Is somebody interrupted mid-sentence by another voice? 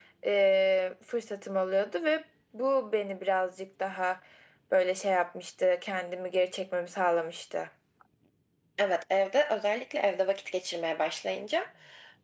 No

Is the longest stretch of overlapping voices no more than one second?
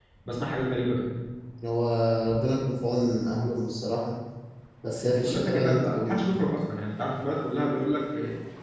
No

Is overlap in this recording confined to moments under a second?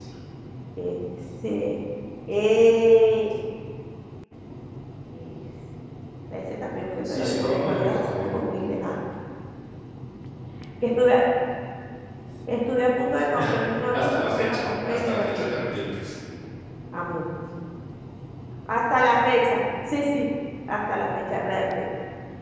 No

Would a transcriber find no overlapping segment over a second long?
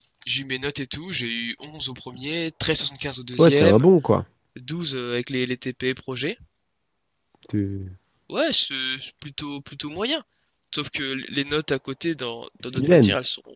Yes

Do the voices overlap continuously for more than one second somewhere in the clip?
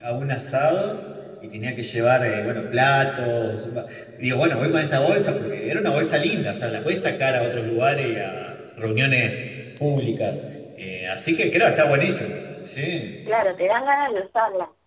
No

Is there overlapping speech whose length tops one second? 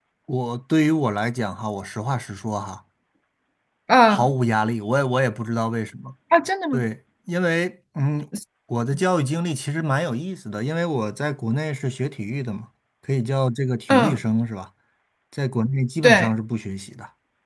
No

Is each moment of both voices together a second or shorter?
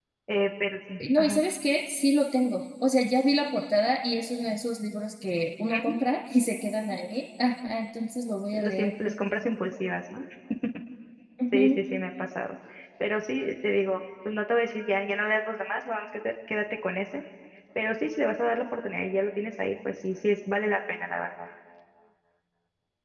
Yes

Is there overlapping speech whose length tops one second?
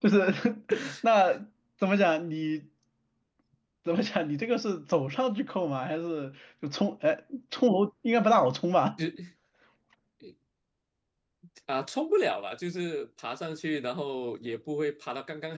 No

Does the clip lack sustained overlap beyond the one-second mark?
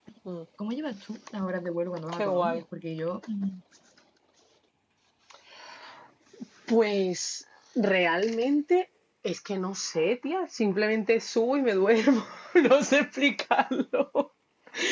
Yes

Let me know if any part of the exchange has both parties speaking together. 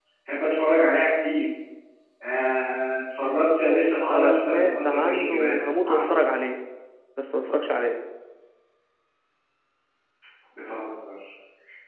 Yes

